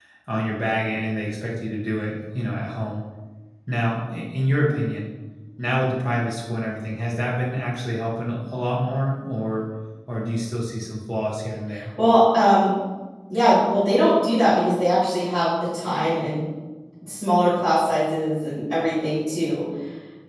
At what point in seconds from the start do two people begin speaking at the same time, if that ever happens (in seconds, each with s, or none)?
none